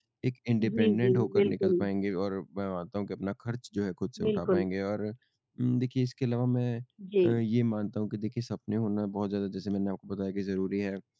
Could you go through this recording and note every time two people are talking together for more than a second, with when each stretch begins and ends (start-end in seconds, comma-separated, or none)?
0.6-1.9